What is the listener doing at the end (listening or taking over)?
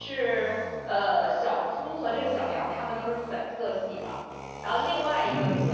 listening